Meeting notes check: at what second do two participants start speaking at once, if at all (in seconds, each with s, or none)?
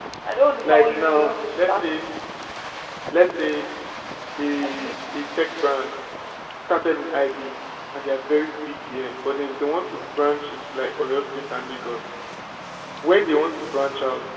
0.6 s